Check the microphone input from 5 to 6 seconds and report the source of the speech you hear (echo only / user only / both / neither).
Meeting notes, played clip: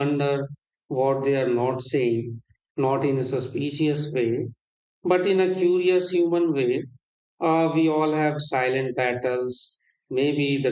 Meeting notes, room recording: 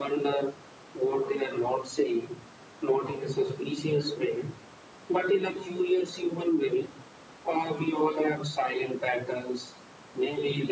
echo only